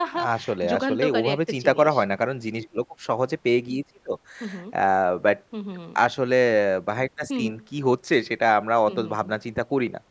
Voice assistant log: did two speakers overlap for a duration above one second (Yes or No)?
Yes